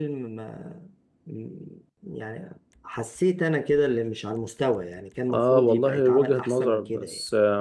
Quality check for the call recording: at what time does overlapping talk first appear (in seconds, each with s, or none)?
5.3 s